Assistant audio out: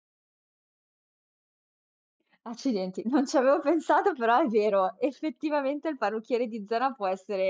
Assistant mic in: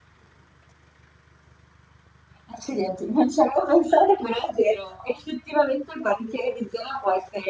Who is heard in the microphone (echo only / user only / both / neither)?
echo only